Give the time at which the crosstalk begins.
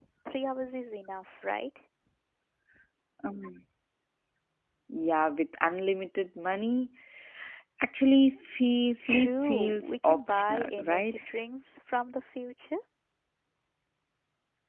9.1 s

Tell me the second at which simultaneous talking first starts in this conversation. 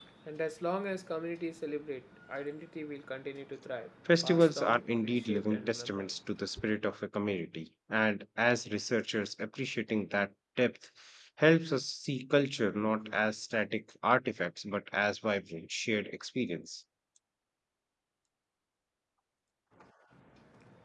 4.0 s

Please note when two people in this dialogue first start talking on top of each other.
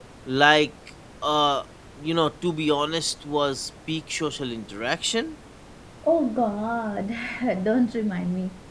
none

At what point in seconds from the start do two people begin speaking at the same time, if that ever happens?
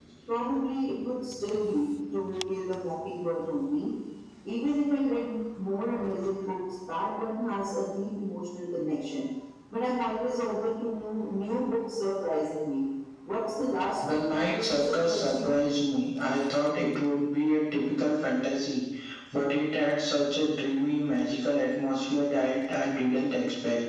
14.1 s

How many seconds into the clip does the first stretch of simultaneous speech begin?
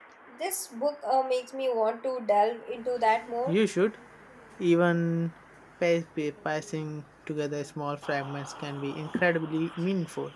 none

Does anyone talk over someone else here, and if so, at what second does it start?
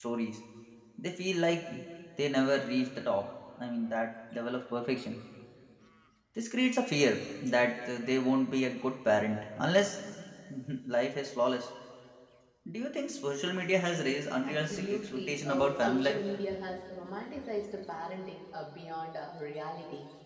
14.4 s

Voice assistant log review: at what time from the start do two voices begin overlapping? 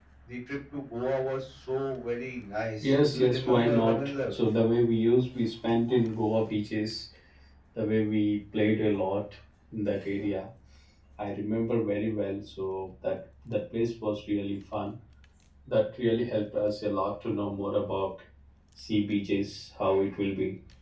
2.8 s

